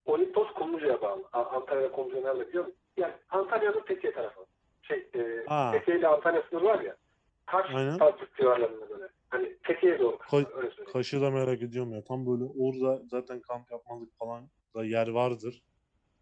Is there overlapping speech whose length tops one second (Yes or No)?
No